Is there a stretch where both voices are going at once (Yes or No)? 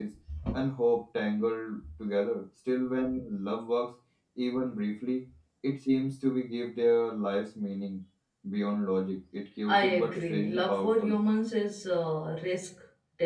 Yes